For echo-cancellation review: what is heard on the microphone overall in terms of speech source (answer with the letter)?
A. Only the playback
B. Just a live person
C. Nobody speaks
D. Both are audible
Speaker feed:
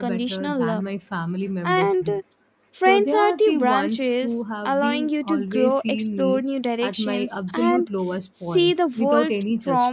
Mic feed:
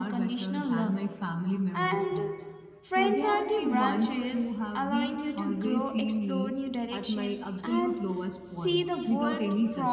A